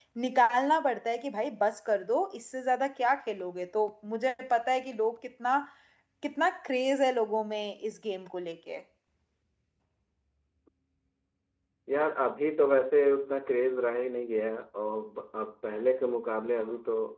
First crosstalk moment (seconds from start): none

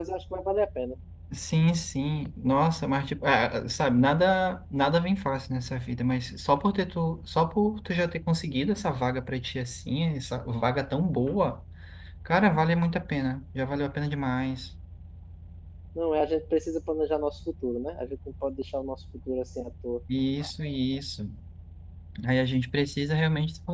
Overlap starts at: none

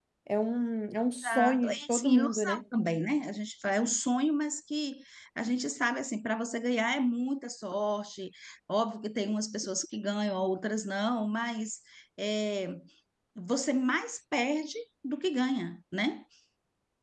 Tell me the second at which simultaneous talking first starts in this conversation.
1.2 s

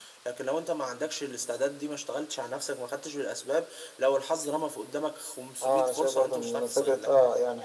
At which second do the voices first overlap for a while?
5.6 s

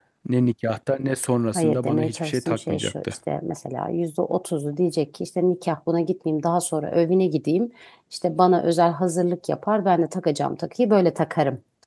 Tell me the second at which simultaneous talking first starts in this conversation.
1.5 s

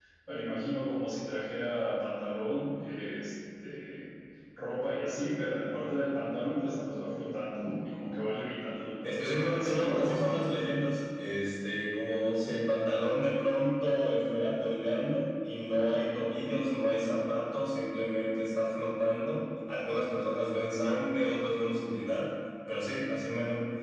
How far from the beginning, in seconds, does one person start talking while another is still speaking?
9.0 s

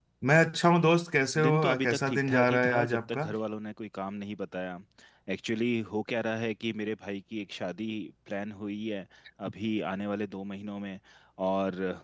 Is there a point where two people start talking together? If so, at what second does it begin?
1.4 s

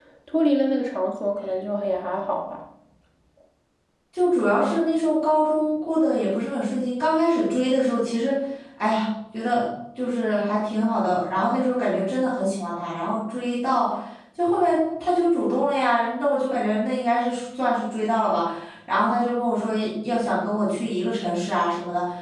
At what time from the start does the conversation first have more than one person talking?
none

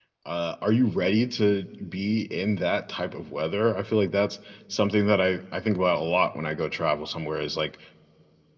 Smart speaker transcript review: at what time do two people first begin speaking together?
none

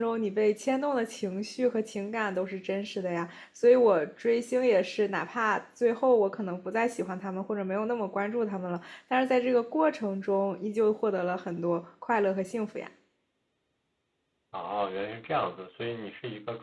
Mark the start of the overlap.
none

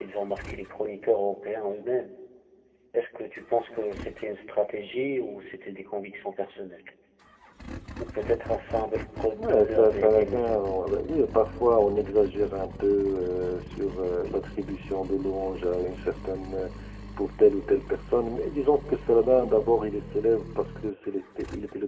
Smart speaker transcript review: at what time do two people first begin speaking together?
9.4 s

